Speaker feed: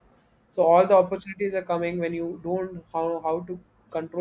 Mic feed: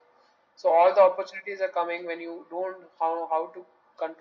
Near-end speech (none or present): none